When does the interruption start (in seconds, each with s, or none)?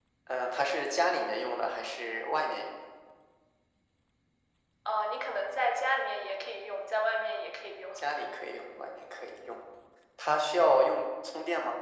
none